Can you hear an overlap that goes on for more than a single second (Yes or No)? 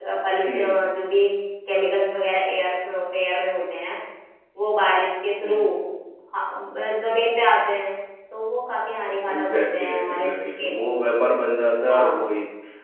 Yes